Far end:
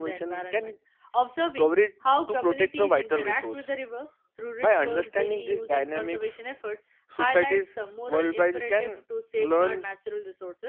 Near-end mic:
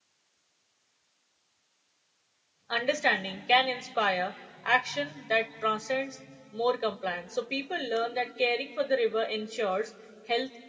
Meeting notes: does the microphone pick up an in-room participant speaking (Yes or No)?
Yes